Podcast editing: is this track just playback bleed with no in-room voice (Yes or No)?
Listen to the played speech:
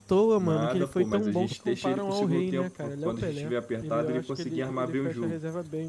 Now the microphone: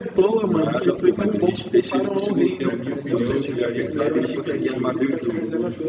No